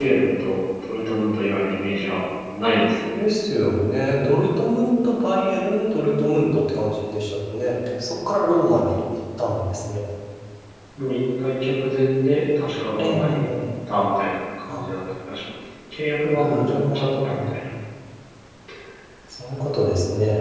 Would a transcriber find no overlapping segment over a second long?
No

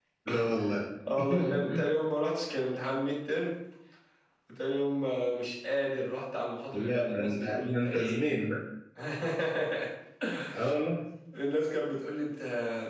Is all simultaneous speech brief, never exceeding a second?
No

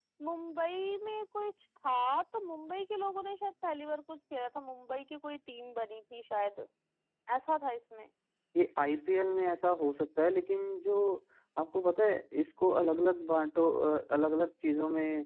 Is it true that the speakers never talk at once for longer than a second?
Yes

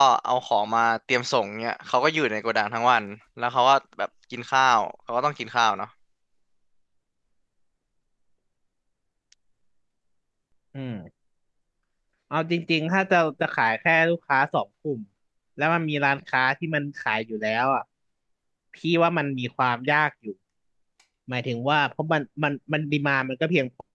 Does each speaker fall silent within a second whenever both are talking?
Yes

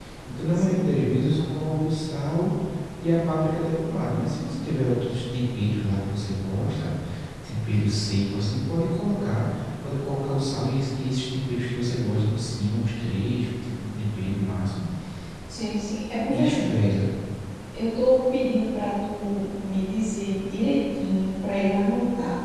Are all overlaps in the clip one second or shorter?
Yes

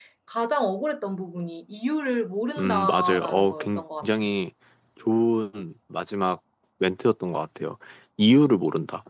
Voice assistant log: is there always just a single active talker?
No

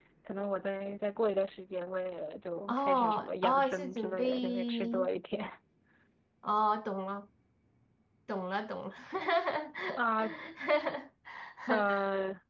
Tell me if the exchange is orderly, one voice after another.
No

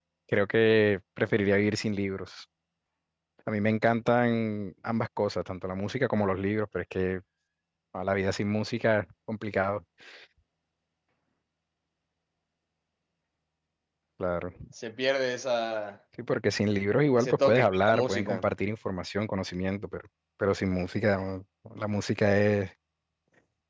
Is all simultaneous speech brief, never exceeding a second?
No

